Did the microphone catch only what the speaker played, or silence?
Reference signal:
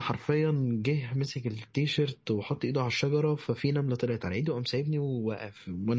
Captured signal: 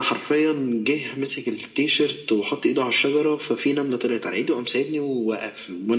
Yes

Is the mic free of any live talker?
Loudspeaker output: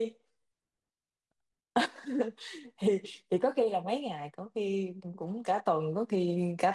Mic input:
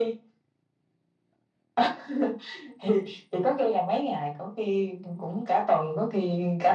Yes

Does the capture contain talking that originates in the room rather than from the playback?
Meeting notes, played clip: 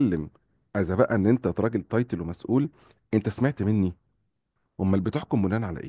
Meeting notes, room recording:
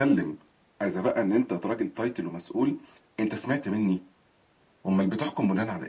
No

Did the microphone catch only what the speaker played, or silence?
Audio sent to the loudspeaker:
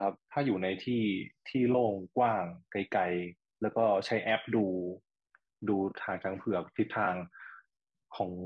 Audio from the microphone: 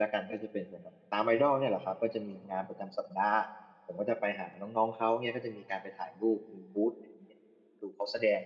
No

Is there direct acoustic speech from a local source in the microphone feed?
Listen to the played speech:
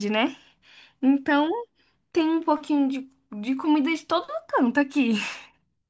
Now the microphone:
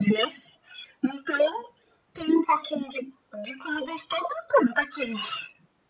No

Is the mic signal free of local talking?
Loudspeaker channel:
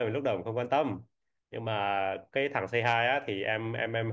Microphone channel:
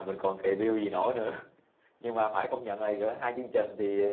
No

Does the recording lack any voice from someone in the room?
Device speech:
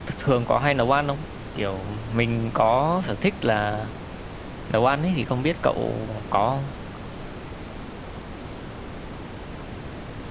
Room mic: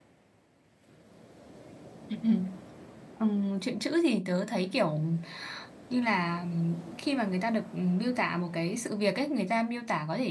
No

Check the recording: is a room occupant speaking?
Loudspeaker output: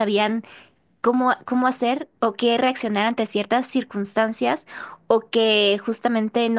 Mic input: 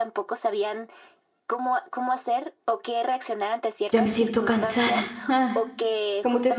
Yes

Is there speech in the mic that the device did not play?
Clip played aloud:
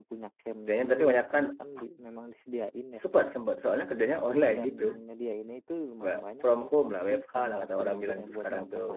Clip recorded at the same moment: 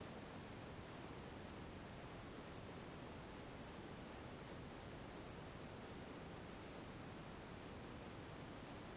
No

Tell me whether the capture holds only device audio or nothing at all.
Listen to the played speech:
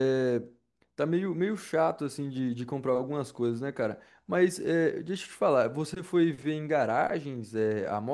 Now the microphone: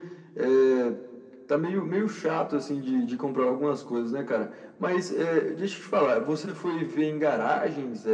Yes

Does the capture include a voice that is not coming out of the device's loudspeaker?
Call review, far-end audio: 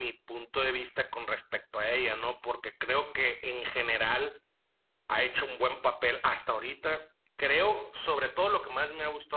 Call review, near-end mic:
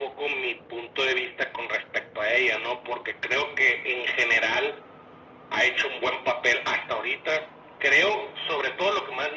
No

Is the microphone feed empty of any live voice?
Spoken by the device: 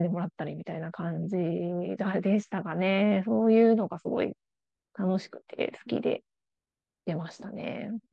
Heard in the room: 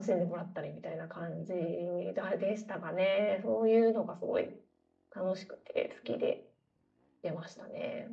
Yes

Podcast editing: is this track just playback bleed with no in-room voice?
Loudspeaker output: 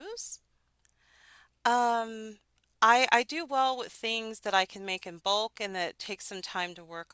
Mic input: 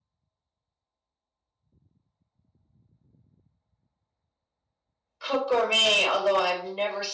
No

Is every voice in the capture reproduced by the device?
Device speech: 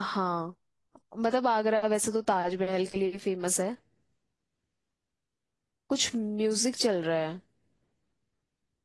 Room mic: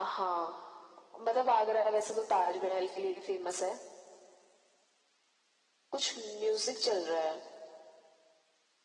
Yes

